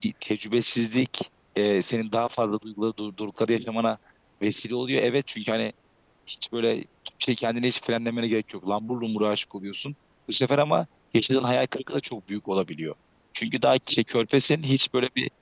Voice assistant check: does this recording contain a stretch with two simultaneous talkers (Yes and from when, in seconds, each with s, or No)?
No